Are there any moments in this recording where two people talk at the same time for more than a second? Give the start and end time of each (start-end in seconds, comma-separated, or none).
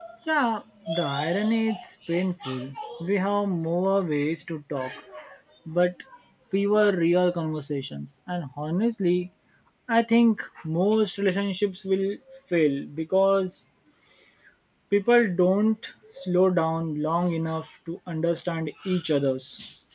none